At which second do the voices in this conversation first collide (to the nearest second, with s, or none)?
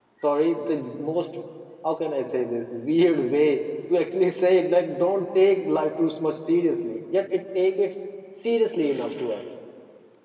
none